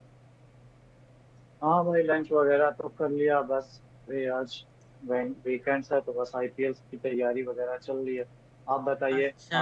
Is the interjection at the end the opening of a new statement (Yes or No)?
Yes